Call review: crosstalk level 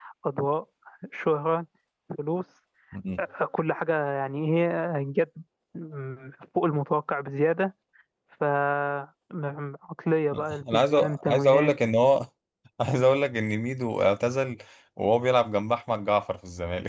present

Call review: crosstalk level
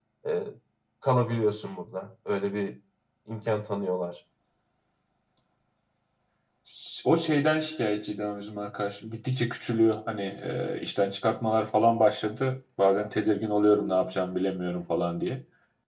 none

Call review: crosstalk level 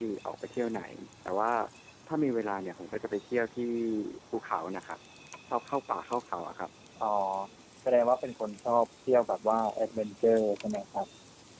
none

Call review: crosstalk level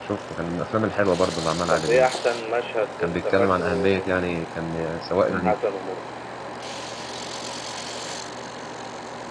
present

